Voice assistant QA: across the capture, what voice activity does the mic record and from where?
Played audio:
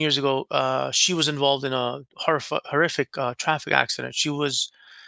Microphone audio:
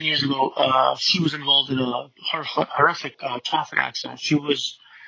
echo only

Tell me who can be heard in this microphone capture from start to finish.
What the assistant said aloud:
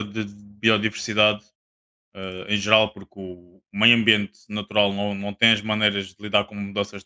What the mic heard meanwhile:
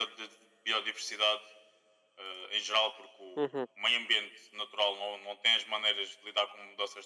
both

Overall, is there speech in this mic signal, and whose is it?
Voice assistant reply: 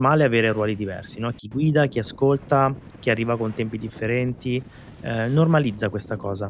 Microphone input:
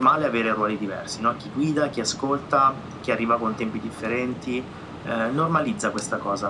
echo only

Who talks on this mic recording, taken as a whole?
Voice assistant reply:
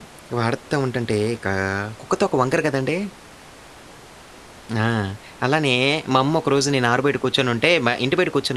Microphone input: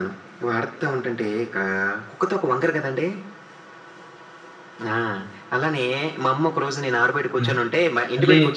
both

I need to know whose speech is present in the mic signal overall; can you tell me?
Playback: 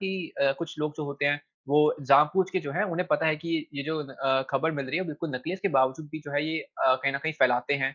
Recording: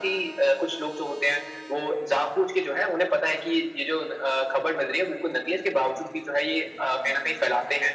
echo only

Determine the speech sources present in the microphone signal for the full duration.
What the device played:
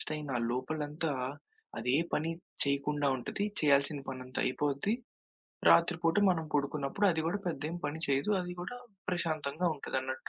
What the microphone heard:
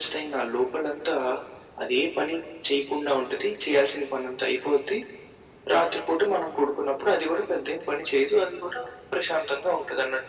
echo only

